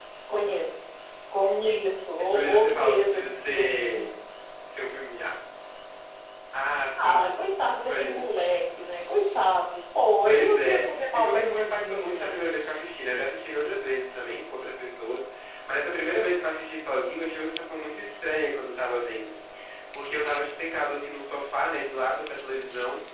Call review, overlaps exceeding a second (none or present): present